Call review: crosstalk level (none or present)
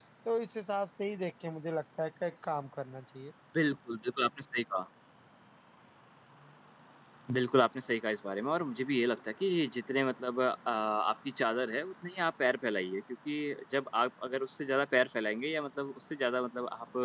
none